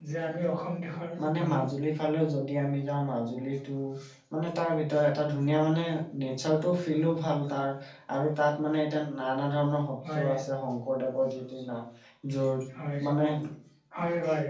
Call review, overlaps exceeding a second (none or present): none